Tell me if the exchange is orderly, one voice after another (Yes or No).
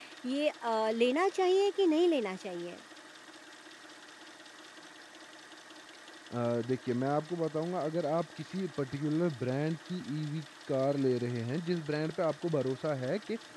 Yes